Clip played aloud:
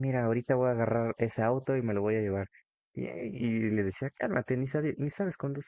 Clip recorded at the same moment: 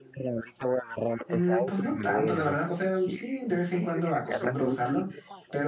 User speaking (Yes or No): Yes